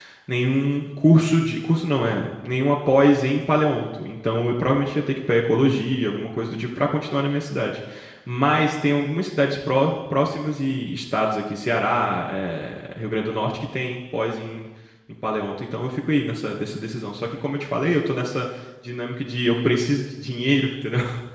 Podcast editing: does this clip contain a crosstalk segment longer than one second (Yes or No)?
No